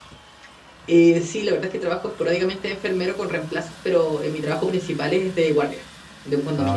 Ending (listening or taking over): taking over